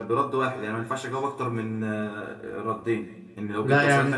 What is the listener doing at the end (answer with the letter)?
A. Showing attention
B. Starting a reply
A